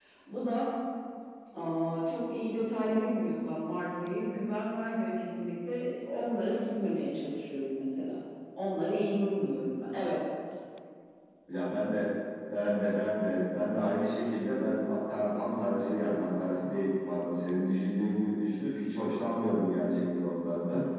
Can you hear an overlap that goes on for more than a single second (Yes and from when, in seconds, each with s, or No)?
No